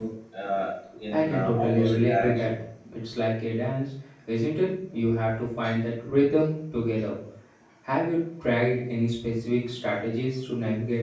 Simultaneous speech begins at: 1.1 s

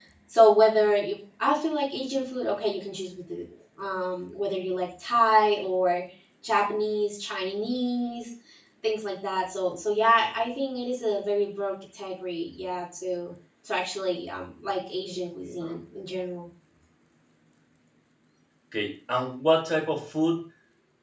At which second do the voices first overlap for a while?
none

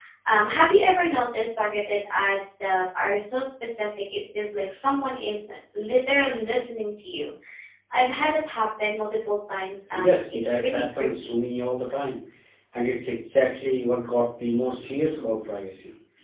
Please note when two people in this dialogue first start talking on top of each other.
9.9 s

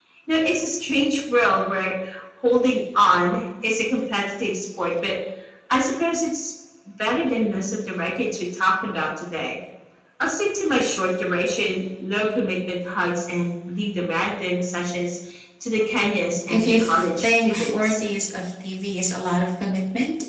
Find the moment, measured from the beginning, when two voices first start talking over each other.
16.5 s

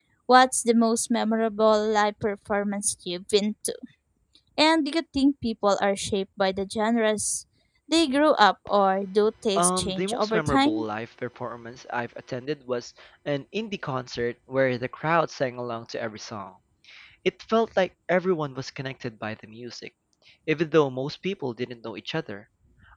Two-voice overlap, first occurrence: 9.6 s

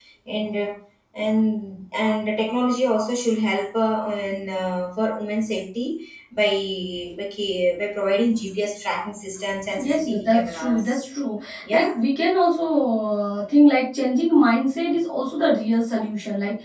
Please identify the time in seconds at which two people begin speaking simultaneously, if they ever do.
9.8 s

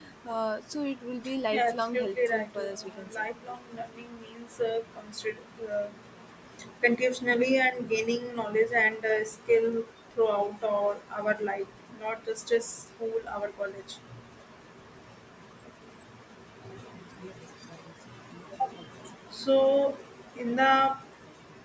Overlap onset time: 1.5 s

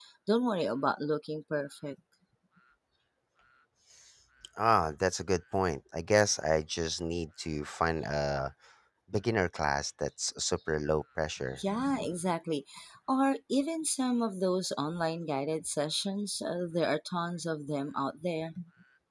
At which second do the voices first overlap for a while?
none

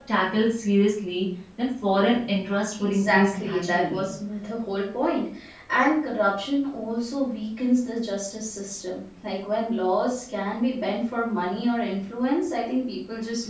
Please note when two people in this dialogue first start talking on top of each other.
2.8 s

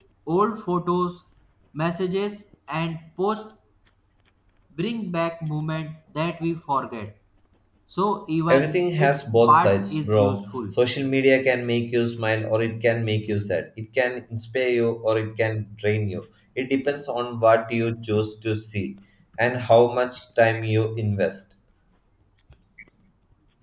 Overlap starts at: 8.5 s

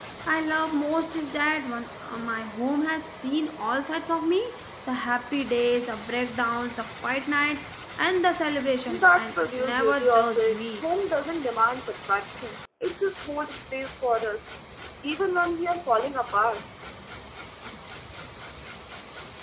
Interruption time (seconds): 8.9 s

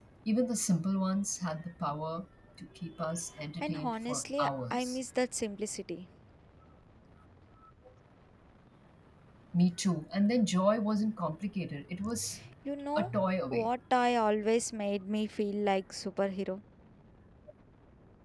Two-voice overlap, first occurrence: 3.6 s

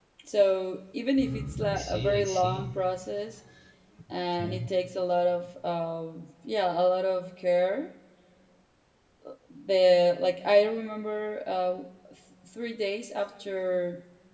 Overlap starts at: 1.2 s

